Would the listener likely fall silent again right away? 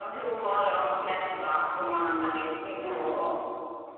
Yes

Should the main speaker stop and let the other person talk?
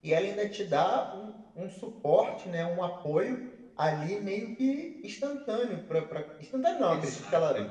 No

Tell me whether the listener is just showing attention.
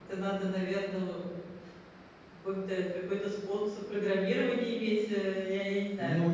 No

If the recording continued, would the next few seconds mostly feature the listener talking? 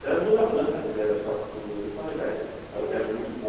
No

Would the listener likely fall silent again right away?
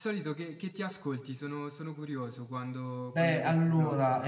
No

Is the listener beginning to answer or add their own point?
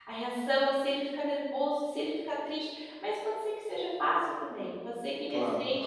No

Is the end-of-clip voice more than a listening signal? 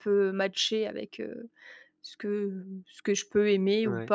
No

